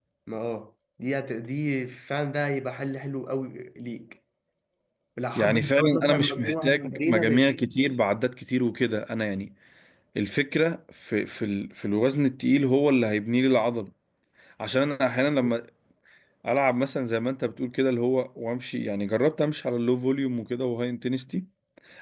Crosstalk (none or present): present